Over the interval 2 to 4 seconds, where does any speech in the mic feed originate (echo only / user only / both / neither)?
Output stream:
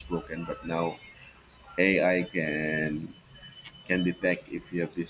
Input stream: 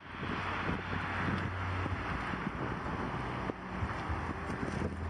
neither